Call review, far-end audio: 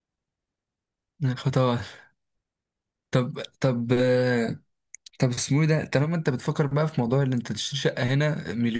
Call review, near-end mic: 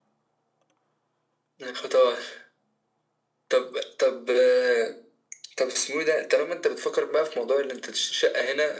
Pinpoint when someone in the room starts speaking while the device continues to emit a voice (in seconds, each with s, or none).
none